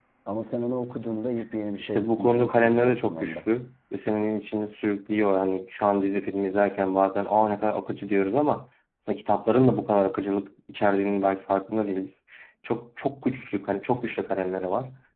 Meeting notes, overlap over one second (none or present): present